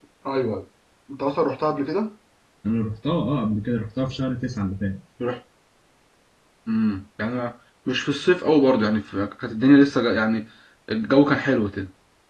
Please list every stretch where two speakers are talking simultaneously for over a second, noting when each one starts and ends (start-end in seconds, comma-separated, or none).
none